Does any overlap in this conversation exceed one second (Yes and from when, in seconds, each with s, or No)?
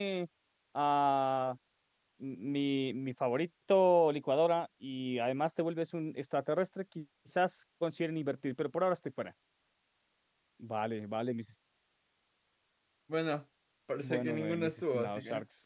Yes, from 14.0 s